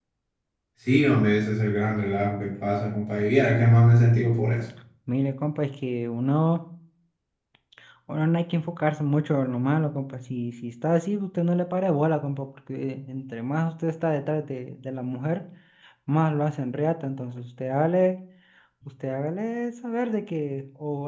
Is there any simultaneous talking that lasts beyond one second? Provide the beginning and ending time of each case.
none

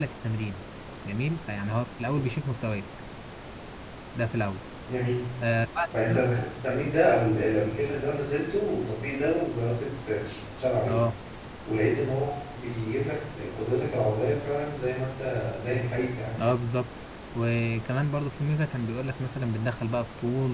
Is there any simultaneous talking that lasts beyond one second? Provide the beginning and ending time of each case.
none

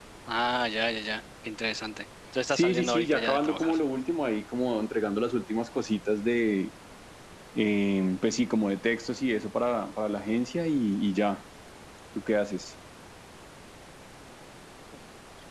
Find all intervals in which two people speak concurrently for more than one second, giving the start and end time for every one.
2.5-3.8

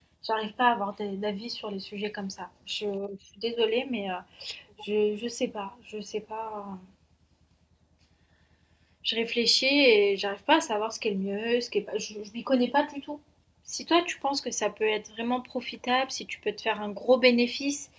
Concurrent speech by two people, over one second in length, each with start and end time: none

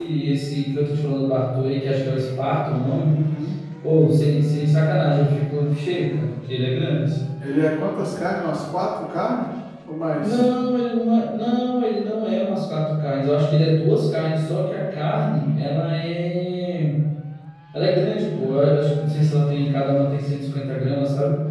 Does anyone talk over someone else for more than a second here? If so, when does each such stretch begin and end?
none

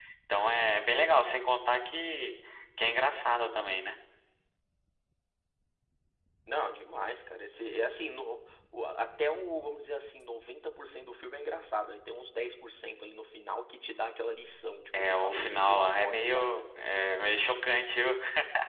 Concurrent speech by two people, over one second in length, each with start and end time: 15.0-16.5

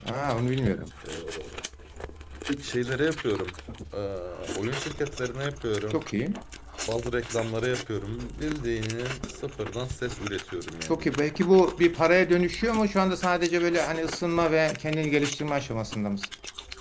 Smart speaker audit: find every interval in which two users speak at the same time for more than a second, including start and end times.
none

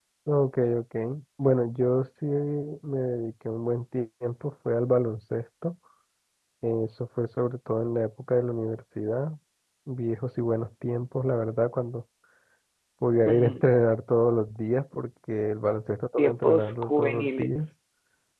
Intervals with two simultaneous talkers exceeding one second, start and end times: 16.2-17.5

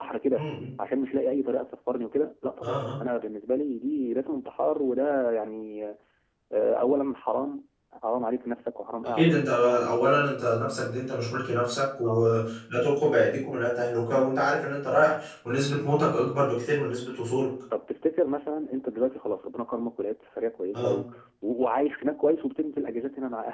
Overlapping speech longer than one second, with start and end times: none

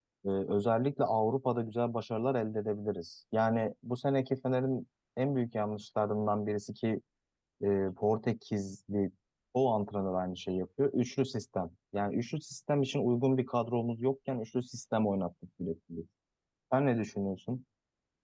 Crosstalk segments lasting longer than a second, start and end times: none

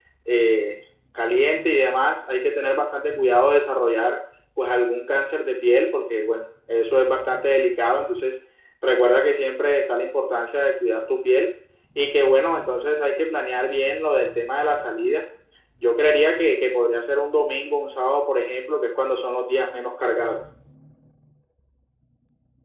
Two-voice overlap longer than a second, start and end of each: none

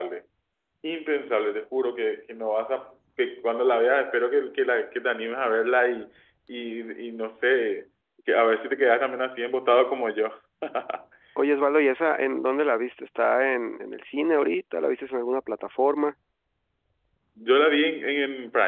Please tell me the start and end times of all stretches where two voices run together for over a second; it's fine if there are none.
none

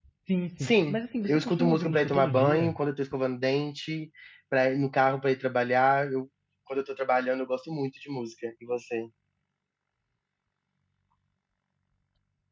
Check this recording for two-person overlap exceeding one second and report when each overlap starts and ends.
0.6-2.8

